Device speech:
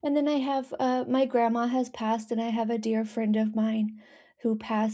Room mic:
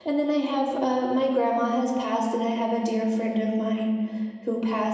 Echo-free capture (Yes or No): No